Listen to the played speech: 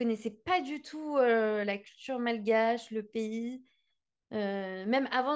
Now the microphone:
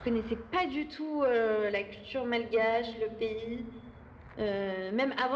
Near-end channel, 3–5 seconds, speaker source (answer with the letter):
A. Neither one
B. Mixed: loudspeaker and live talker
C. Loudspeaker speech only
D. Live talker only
C